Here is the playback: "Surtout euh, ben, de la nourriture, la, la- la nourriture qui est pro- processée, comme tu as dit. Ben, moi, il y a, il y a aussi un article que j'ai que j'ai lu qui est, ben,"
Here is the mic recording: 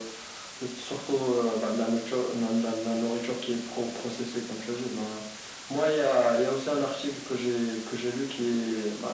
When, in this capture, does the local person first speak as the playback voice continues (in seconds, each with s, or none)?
none